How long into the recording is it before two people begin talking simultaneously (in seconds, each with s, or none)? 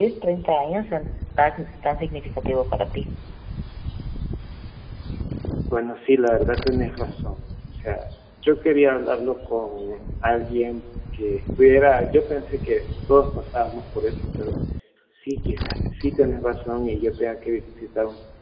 none